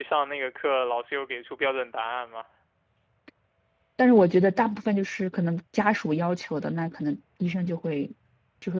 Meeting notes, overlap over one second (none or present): none